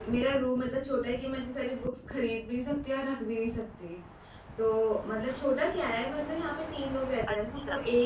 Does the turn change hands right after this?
No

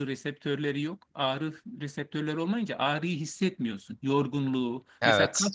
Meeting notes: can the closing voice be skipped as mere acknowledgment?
Yes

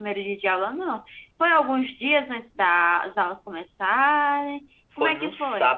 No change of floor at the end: No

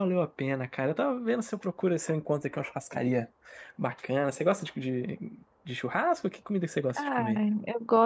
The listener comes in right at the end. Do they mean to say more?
Yes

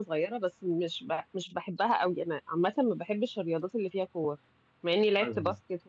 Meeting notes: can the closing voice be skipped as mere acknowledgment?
Yes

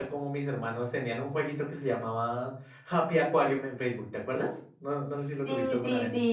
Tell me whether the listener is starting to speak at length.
Yes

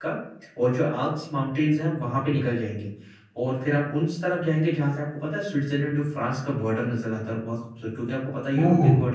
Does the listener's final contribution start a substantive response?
No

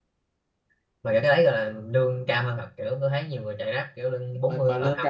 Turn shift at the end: Yes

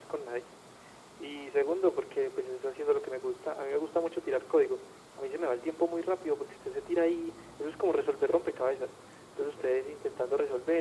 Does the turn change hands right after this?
No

